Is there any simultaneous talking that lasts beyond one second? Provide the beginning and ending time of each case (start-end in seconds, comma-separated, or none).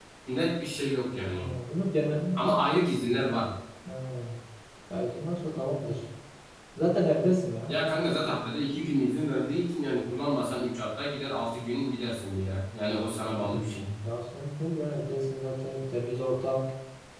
none